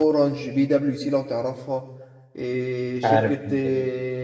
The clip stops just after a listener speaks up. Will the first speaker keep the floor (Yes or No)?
Yes